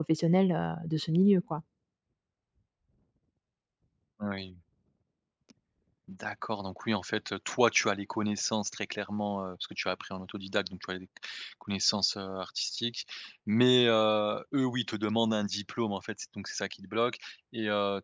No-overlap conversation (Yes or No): Yes